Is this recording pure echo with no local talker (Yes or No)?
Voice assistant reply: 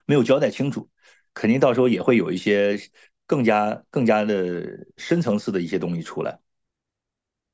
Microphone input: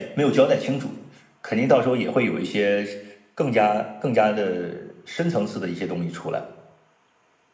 Yes